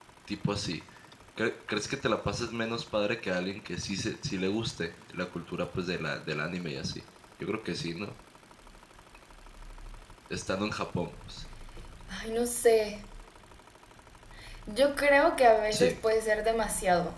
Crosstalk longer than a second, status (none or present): none